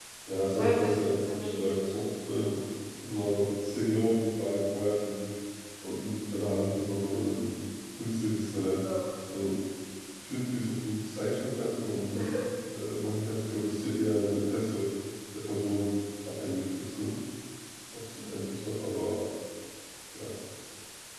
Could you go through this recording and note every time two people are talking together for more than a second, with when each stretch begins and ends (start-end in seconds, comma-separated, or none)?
0.5-2.0